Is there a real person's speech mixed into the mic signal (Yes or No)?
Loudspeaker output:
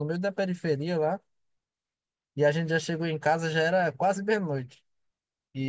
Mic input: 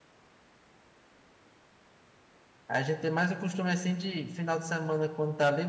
Yes